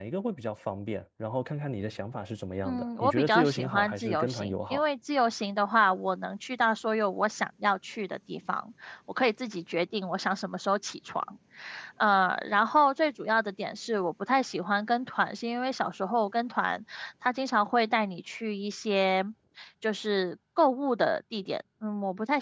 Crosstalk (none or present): present